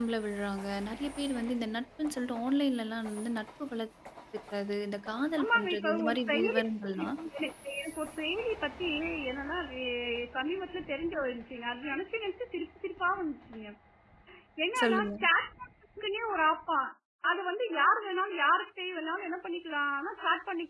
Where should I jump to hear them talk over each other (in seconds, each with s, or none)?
5.4 s